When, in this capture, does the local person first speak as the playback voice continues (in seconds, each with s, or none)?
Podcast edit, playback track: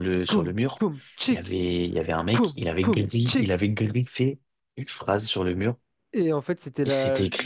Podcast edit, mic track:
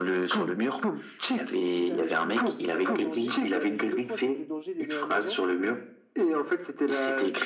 1.7 s